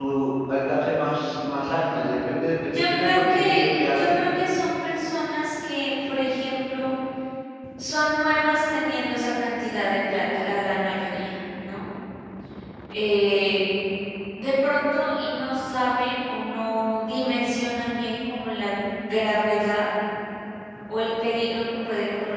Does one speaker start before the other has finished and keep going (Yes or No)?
Yes